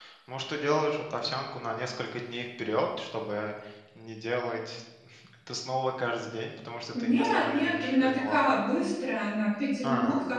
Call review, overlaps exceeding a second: present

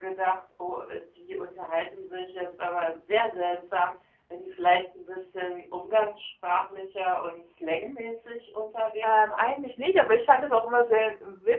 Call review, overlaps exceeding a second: none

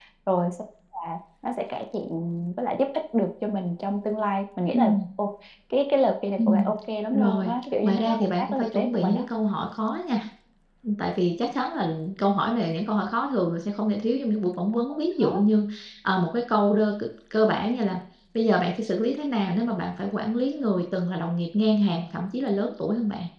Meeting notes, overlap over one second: present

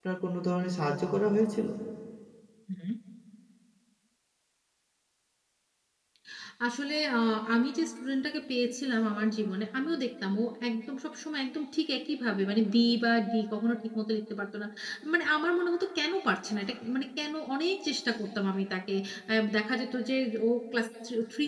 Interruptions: none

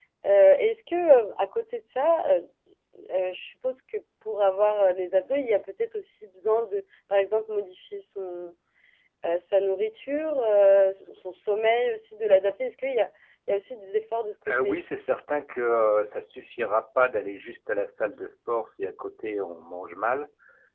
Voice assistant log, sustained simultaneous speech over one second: none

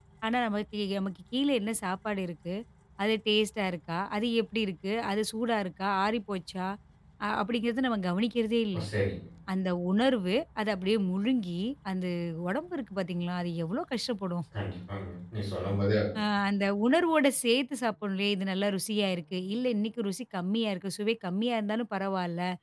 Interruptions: none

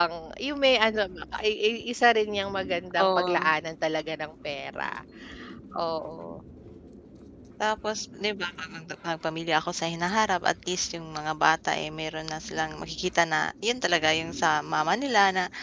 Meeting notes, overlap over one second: none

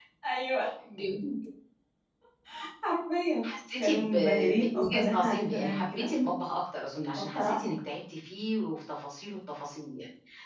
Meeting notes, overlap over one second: present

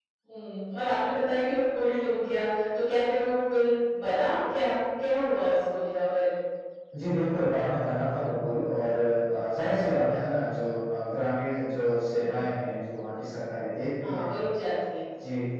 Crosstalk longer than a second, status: none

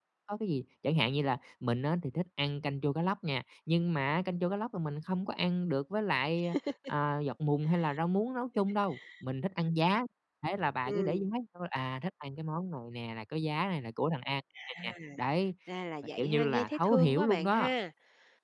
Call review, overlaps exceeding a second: present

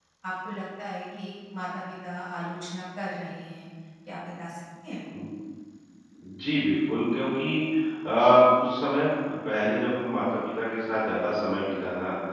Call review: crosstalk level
none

